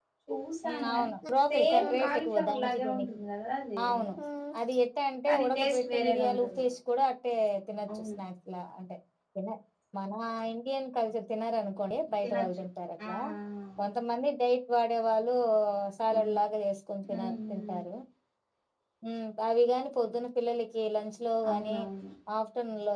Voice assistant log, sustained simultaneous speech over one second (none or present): present